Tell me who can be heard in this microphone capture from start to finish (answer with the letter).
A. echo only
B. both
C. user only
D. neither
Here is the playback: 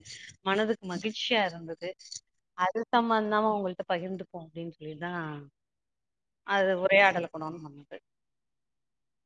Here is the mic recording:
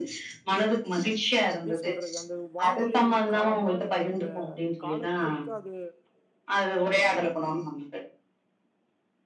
B